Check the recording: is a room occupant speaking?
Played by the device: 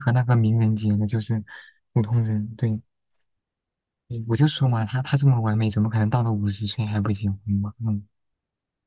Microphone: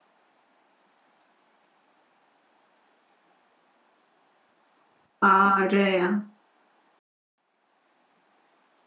Yes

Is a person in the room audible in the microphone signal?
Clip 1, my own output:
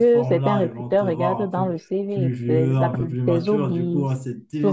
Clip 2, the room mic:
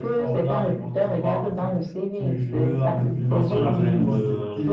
Yes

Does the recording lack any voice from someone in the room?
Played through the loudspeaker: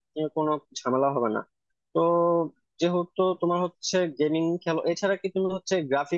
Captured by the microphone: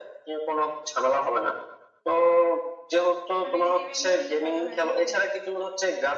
No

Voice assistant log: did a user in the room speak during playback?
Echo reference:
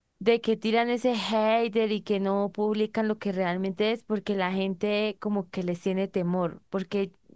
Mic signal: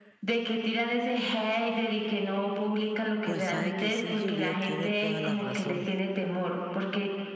Yes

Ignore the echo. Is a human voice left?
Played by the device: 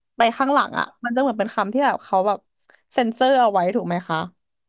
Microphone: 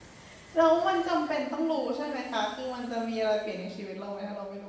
Yes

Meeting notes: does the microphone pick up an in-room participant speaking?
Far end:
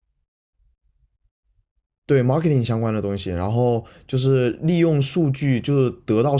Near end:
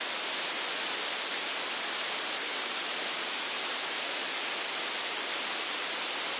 No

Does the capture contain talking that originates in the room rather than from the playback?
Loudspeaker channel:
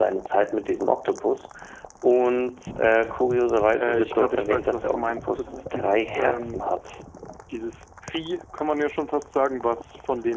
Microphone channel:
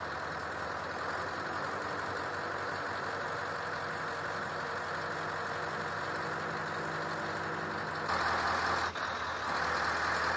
No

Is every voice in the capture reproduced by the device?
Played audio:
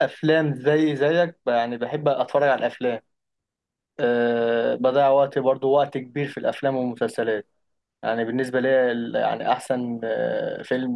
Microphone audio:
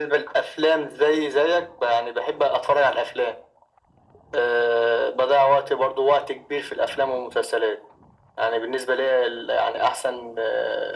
Yes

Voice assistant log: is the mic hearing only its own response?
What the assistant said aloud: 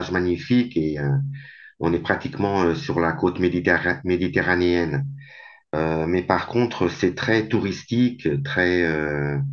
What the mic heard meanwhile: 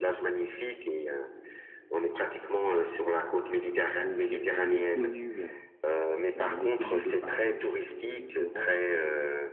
No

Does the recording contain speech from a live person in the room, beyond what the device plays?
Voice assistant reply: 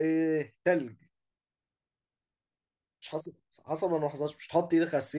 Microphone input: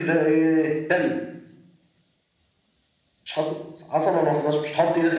No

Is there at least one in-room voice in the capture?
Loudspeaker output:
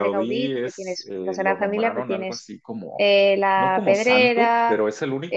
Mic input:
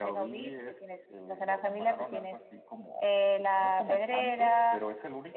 No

